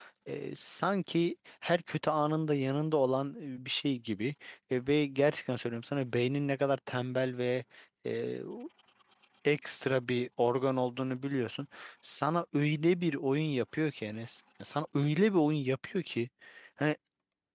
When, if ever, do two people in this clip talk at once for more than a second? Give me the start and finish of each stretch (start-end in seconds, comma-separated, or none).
none